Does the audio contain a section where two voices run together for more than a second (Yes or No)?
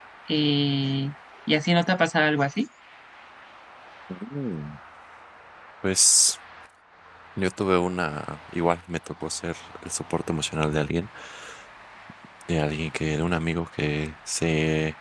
No